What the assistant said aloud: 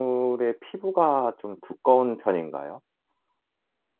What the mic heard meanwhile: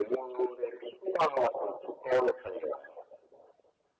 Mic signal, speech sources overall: echo only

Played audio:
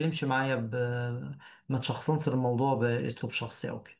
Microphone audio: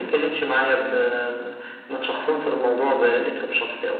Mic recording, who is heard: echo only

